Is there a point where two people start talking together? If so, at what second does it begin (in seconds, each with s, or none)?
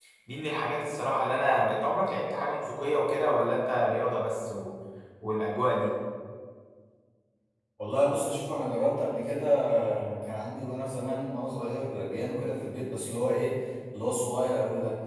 none